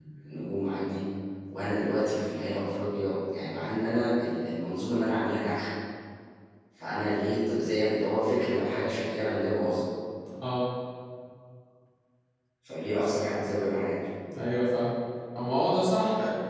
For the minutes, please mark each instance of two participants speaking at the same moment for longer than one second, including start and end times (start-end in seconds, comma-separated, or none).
none